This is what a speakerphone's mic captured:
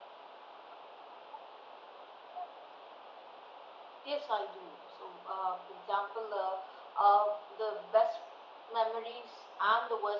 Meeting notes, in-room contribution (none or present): none